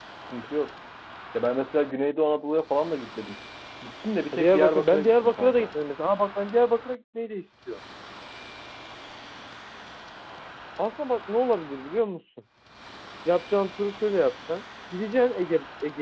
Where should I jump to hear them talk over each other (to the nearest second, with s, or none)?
4 s